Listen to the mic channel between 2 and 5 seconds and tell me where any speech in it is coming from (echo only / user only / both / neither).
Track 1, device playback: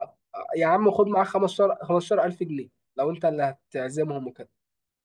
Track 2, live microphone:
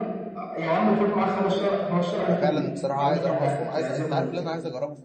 both